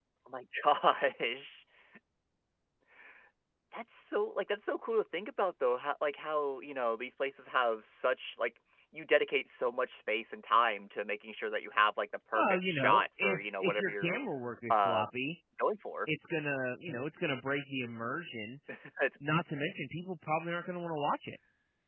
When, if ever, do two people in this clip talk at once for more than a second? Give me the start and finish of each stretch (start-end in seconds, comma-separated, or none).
12.3-14.2